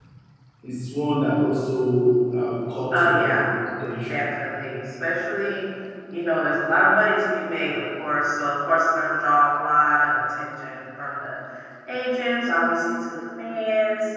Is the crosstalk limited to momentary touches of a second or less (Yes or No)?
Yes